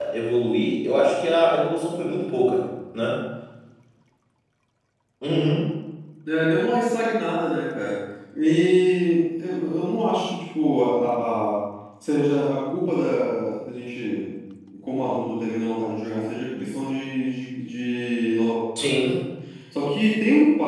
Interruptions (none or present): none